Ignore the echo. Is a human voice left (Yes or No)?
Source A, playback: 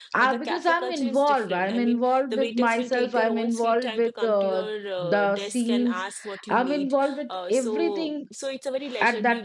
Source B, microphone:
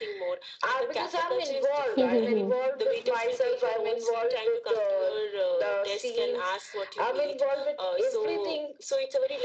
Yes